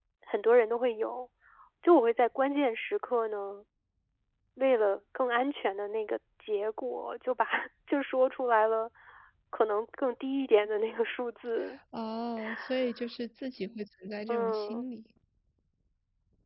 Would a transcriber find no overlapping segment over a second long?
Yes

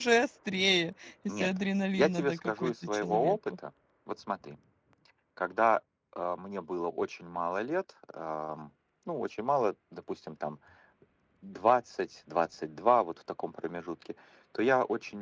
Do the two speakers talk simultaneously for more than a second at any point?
Yes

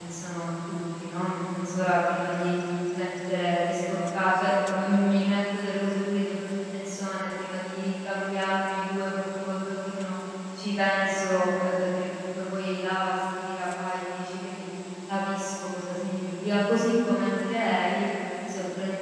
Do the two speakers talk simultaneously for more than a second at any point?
No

